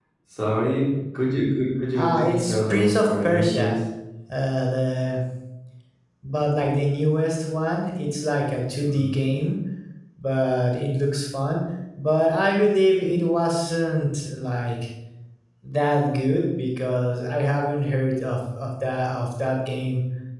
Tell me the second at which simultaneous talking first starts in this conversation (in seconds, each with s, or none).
1.9 s